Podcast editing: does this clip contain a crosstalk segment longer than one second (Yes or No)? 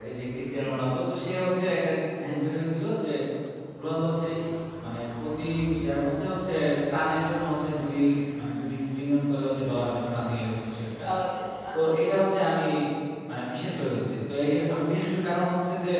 No